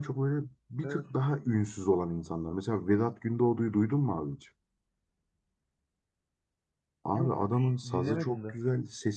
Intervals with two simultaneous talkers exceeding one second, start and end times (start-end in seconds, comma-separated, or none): 7.1-8.6